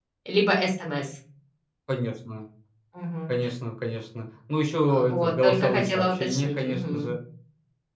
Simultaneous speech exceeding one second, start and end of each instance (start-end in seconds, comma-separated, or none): 4.9-7.1